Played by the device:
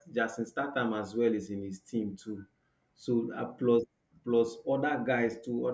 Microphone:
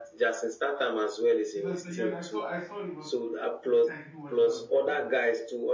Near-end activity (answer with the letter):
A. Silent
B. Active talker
B